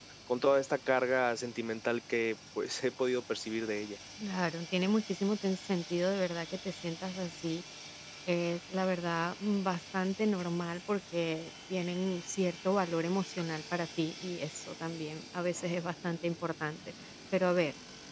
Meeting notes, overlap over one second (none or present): none